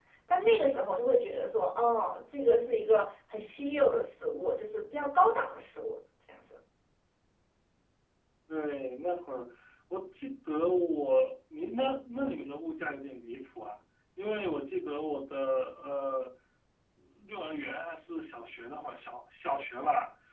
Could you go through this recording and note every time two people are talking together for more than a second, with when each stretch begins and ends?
none

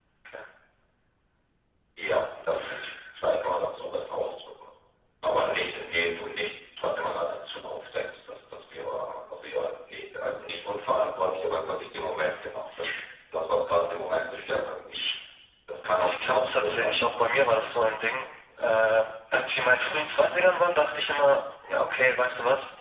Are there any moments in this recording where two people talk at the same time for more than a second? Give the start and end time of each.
16.0-17.8

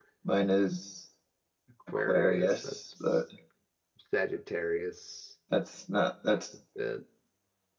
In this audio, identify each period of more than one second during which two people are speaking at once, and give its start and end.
1.9-3.2

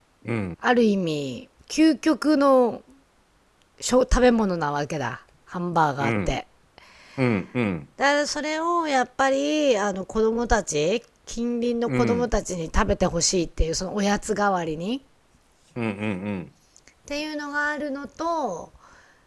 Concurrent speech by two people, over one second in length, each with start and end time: none

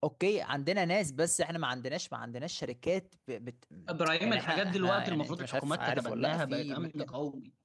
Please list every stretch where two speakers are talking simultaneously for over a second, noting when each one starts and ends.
4.2-7.0

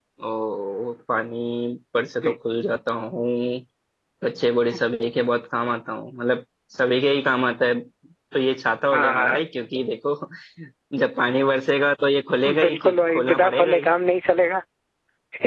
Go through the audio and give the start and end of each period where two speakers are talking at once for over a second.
12.6-13.9

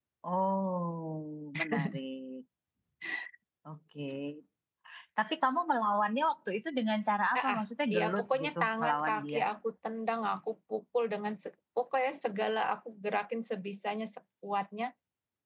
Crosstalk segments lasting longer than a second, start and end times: 8.0-9.4

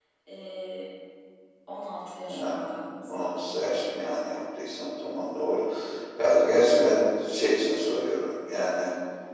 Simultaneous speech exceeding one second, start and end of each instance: none

